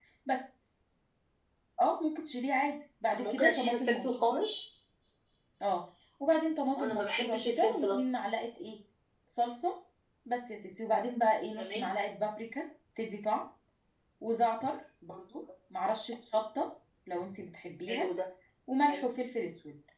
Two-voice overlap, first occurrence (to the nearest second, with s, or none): 3 s